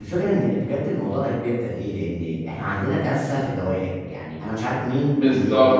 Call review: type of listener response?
taking over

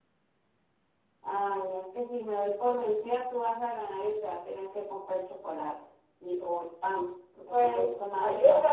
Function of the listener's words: taking over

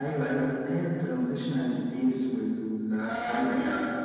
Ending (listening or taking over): taking over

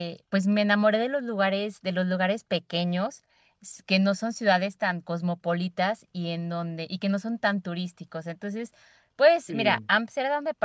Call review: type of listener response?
listening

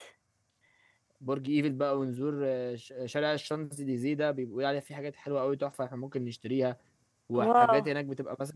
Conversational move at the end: listening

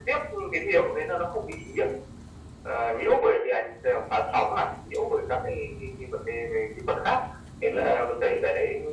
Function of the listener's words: listening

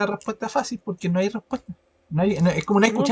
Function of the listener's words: listening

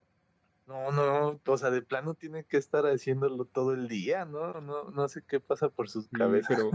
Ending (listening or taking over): taking over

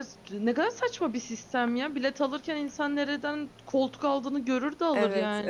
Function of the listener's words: taking over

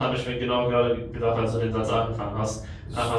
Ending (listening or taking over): listening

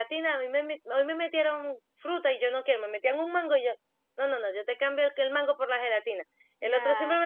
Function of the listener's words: listening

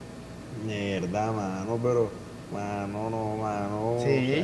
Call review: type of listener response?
taking over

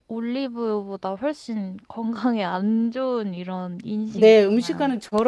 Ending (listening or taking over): taking over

